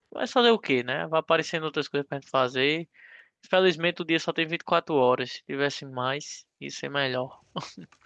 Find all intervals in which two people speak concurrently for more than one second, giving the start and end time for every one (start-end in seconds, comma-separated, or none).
none